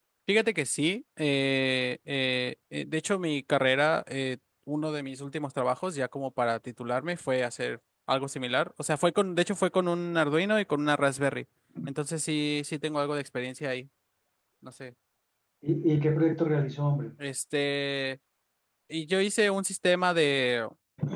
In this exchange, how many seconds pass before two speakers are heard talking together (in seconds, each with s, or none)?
none